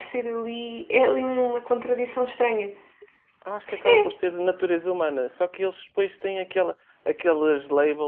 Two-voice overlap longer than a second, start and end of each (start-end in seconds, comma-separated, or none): none